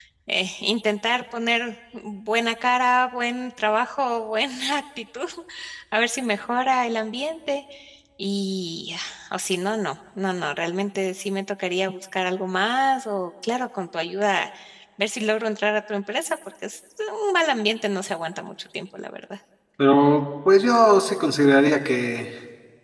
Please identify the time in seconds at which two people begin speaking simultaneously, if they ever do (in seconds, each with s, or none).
none